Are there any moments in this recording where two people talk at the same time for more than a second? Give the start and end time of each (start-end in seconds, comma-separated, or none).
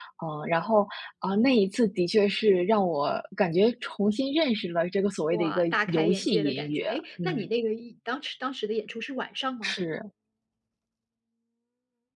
5.3-7.5